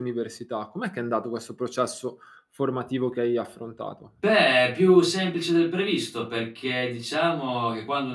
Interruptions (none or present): none